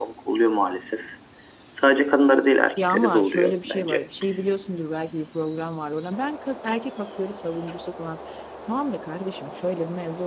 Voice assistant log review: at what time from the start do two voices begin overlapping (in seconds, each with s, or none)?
2.8 s